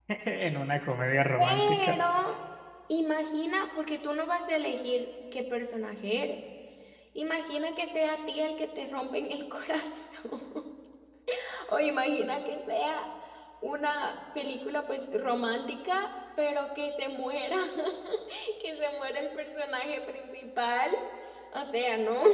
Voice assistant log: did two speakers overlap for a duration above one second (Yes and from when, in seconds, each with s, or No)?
No